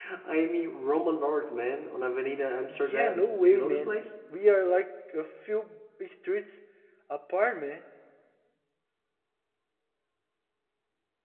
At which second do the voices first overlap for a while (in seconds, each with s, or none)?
2.7 s